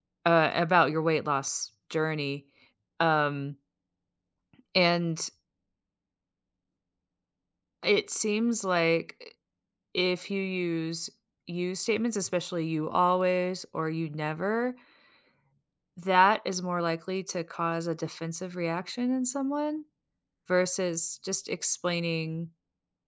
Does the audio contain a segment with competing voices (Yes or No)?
No